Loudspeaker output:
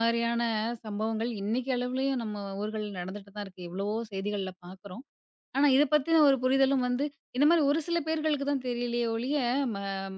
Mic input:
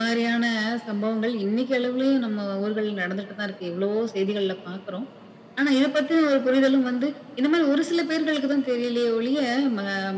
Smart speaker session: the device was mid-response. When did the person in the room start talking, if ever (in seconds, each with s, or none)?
none